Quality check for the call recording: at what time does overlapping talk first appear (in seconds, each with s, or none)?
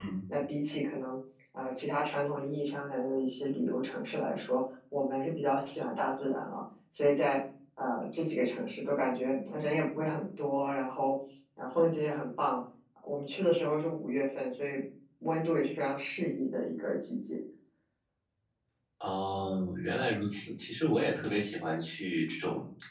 none